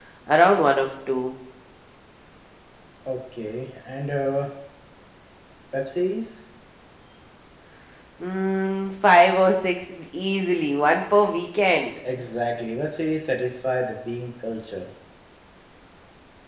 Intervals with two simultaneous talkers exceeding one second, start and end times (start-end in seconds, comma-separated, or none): none